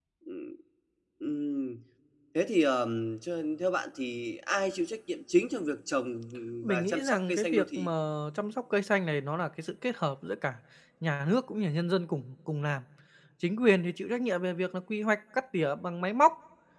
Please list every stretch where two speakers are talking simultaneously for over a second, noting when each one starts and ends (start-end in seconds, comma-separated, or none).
6.7-7.9